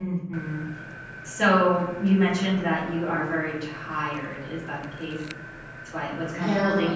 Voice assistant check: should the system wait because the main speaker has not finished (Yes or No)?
Yes